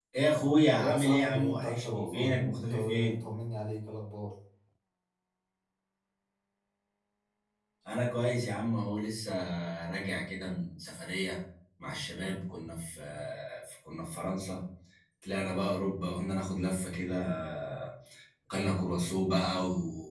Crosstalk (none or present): present